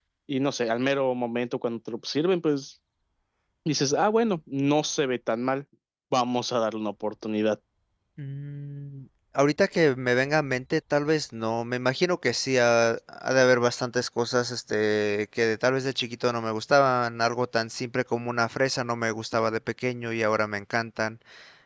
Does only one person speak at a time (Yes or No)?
Yes